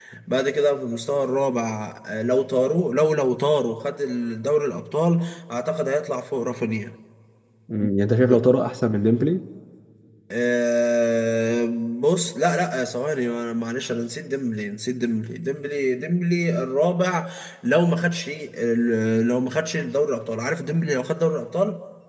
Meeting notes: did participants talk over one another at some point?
No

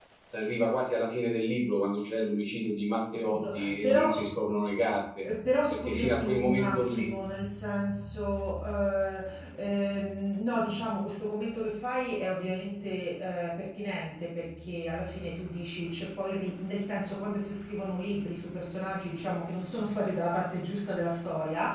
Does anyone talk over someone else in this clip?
Yes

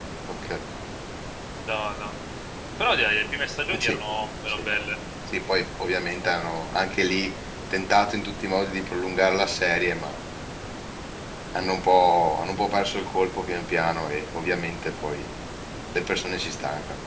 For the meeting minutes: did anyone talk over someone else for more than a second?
No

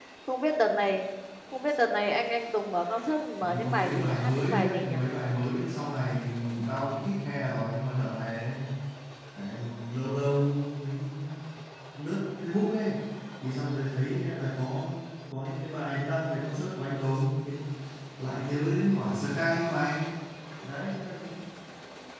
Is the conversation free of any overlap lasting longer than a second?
No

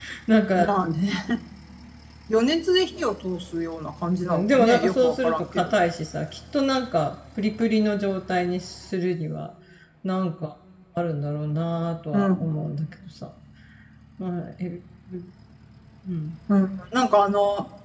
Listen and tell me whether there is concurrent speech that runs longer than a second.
Yes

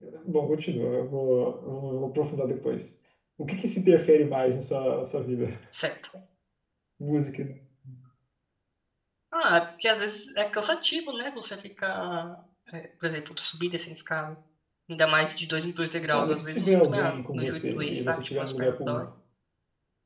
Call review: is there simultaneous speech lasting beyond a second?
Yes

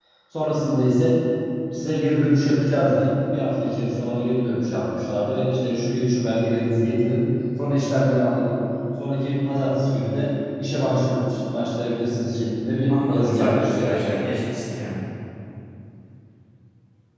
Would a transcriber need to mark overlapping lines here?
Yes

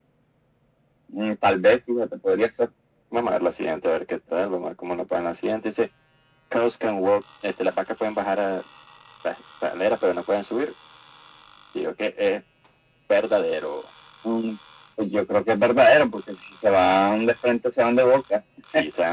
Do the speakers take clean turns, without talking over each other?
Yes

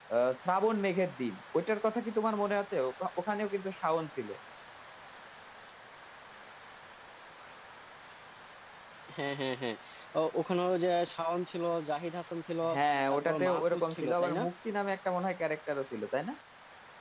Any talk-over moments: Yes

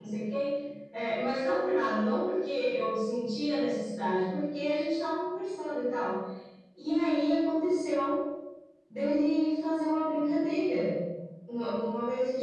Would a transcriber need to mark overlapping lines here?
No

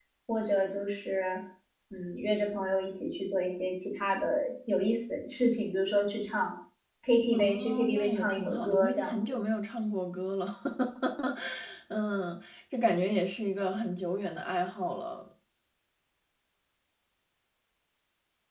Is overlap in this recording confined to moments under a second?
No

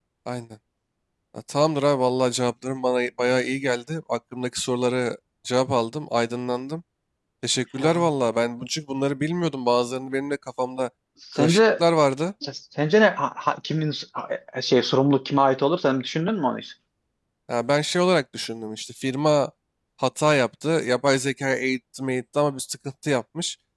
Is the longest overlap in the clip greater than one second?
No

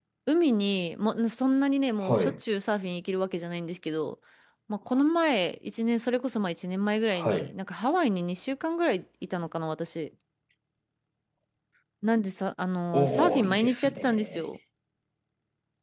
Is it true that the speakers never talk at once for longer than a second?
No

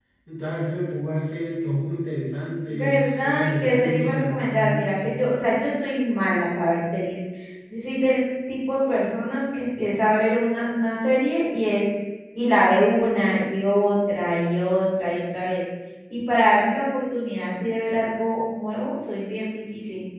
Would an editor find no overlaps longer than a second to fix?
No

